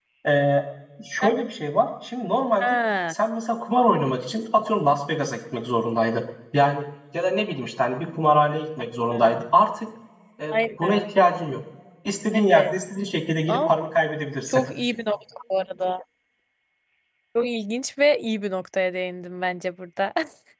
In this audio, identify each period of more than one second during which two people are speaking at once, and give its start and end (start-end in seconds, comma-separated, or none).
none